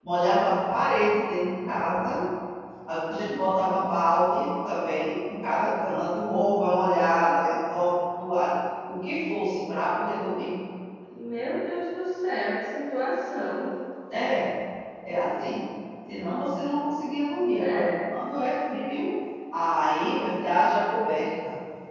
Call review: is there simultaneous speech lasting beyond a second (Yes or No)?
No